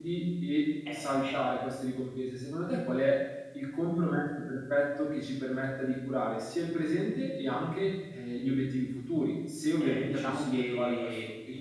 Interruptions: present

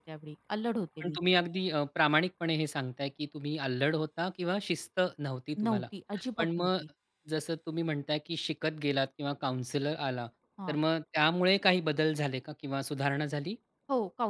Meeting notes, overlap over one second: none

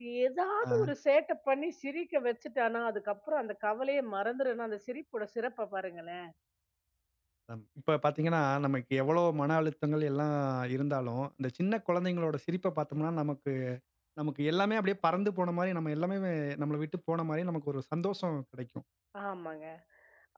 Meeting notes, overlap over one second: none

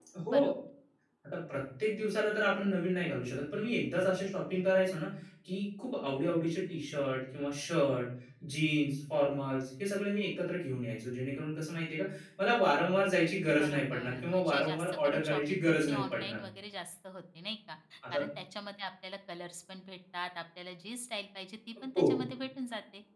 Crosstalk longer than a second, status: present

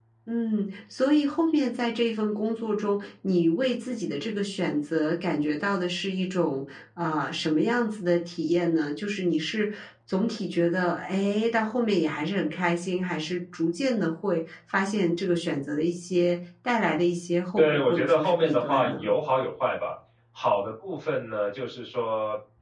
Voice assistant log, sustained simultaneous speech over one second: present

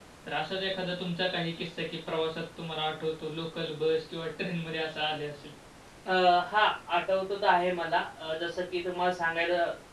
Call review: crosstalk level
none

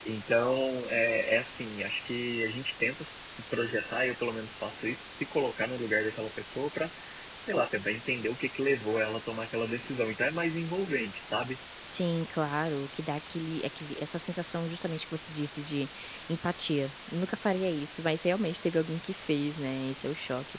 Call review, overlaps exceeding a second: none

